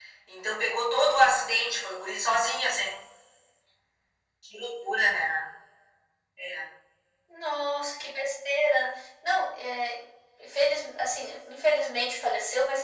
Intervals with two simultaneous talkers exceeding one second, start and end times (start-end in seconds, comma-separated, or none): none